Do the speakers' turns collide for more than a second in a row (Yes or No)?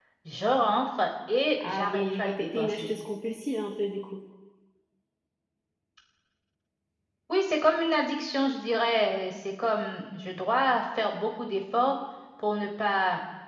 Yes